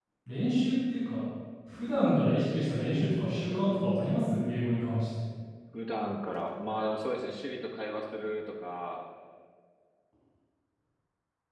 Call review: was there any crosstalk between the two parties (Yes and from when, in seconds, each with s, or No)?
No